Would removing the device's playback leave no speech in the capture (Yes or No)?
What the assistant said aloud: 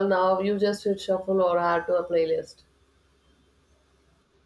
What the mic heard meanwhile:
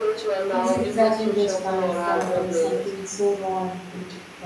No